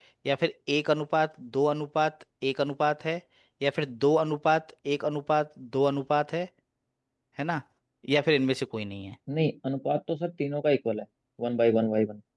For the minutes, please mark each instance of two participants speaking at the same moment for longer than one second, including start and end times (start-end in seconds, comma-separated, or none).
none